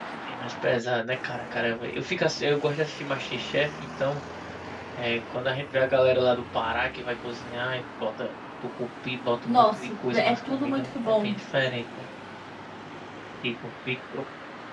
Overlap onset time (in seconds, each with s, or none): 9.4 s